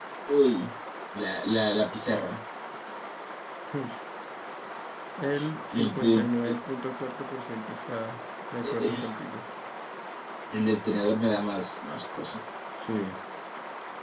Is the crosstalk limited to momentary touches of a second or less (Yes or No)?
Yes